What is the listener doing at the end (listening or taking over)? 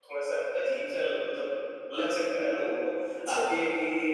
listening